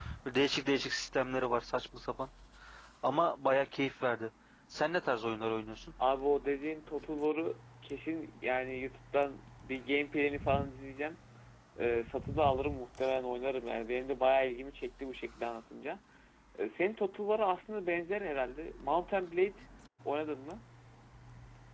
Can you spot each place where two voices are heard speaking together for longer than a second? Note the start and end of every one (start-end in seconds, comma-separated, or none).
none